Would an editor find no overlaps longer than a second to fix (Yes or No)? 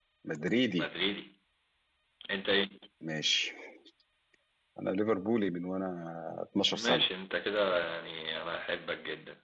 Yes